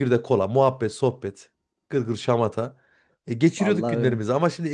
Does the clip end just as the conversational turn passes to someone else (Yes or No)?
No